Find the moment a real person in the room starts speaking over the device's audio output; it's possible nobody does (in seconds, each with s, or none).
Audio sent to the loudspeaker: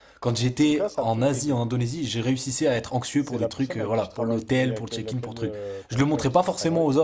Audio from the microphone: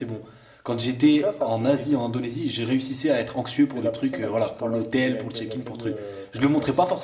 none